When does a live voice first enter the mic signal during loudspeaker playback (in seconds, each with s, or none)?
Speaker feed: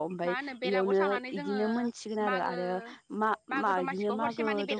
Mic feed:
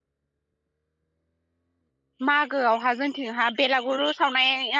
2.2 s